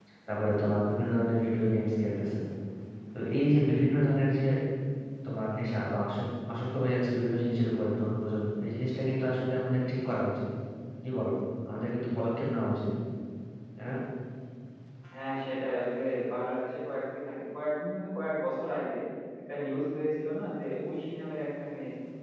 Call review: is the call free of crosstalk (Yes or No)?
Yes